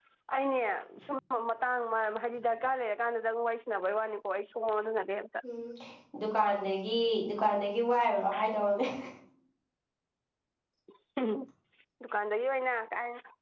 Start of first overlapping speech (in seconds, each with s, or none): none